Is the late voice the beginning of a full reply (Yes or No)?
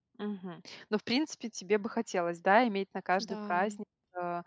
No